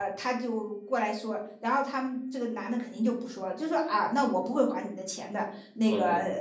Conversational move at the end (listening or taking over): listening